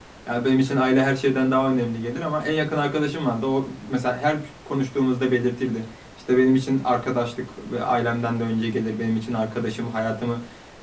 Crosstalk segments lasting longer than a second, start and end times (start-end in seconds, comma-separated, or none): none